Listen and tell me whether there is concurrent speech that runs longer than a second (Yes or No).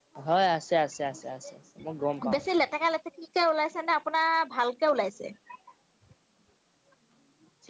No